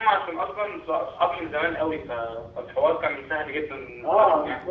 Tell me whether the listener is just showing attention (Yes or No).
No